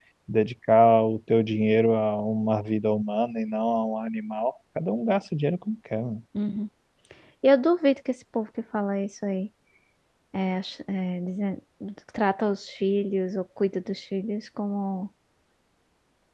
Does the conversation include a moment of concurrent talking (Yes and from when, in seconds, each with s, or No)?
No